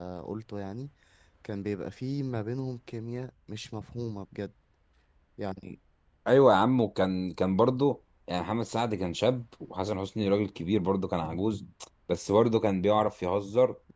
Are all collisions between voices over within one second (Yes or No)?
Yes